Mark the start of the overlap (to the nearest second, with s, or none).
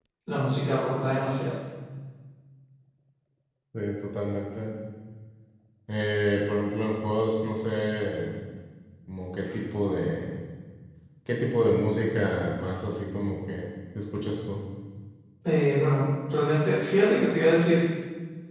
none